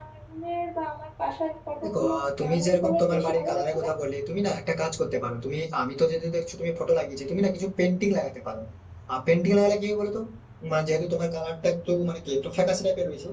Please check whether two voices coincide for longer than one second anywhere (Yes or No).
Yes